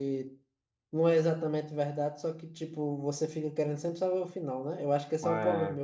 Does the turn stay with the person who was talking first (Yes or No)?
Yes